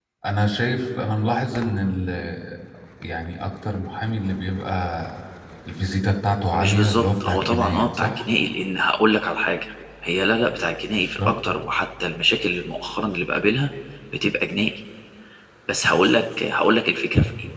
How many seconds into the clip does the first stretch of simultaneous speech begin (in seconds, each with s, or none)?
6.5 s